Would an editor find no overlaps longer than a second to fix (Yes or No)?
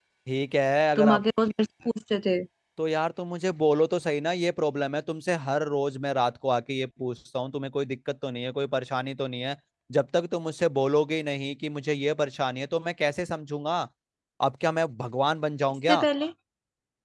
Yes